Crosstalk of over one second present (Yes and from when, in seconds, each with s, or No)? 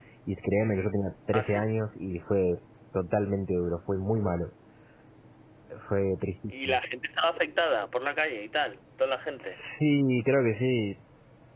No